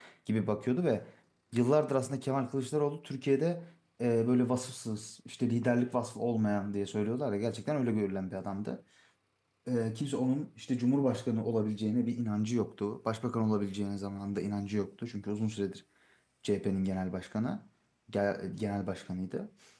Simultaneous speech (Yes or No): No